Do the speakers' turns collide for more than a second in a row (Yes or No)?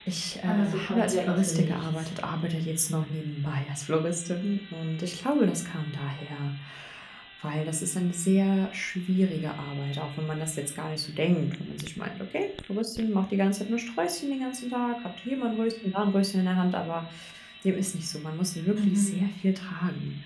Yes